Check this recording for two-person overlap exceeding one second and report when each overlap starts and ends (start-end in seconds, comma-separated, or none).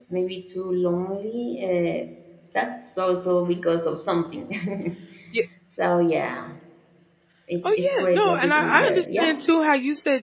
7.6-9.4